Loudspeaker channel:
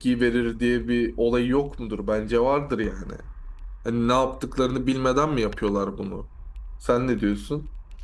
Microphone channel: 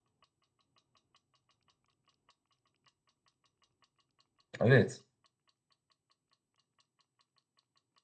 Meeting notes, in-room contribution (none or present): present